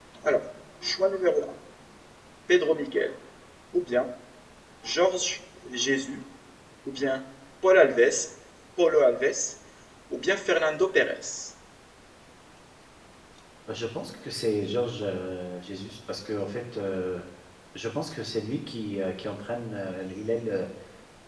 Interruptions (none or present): none